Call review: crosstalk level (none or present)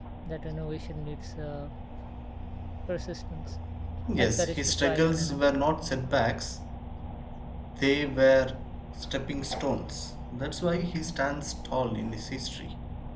present